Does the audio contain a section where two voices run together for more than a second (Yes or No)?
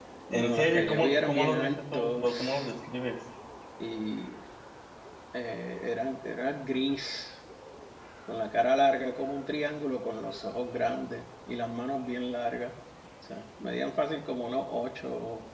Yes